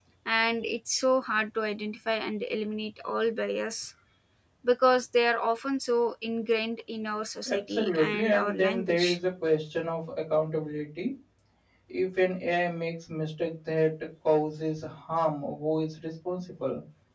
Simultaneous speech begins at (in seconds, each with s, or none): 7.5 s